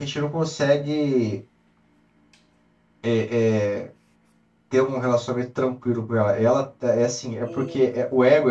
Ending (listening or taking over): listening